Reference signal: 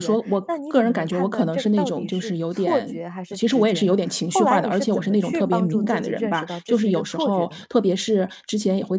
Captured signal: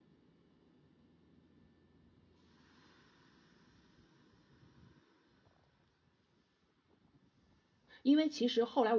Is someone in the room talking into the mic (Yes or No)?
Yes